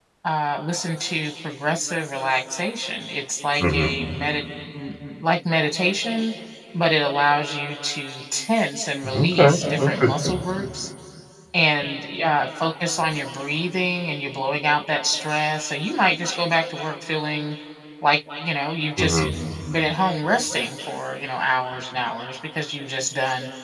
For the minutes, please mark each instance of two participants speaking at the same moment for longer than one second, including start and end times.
9.1-10.4

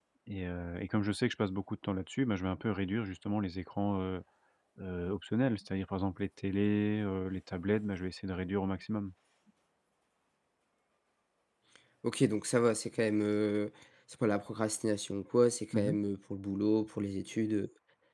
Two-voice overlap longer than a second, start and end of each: none

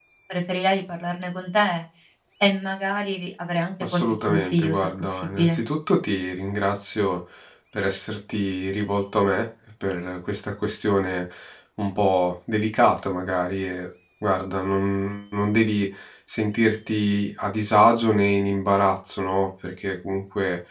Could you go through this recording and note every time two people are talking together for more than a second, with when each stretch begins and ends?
3.8-5.6

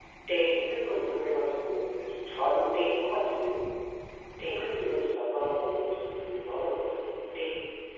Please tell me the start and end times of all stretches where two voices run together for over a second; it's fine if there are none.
none

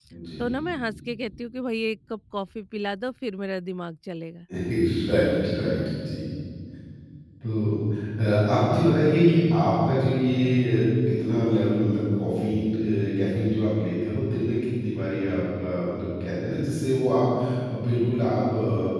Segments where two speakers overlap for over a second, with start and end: none

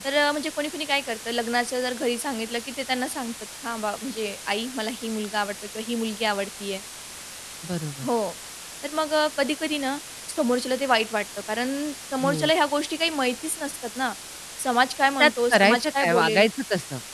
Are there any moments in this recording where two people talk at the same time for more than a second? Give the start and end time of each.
15.2-16.4

